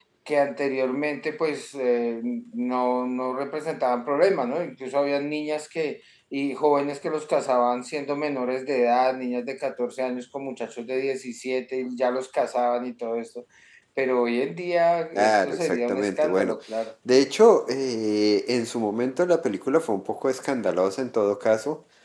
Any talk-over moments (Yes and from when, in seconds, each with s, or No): Yes, from 15.2 s